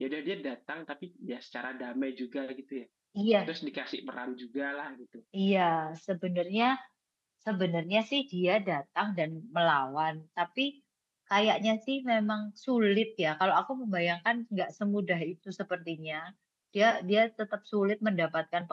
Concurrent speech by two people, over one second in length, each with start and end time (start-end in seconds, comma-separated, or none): none